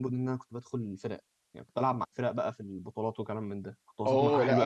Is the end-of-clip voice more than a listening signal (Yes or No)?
Yes